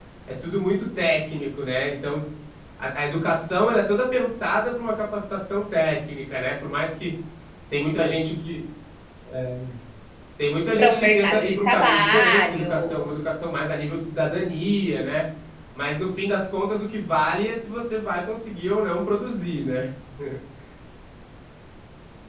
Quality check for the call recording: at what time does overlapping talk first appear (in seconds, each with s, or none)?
10.8 s